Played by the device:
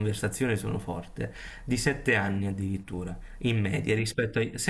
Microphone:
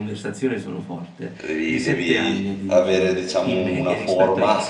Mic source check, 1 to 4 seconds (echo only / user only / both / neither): both